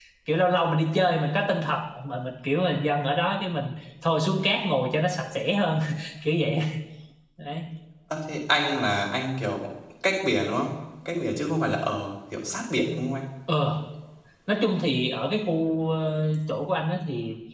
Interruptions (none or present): none